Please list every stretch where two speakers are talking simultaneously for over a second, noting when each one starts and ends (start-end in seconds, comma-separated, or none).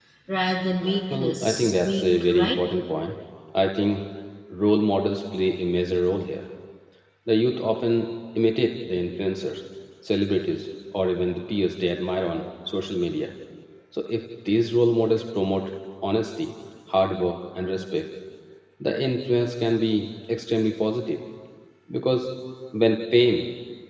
1.1-2.6